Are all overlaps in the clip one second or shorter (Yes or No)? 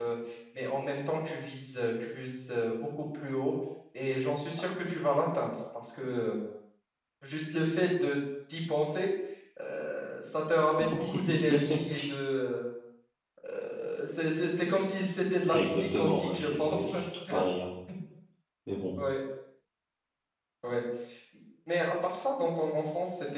No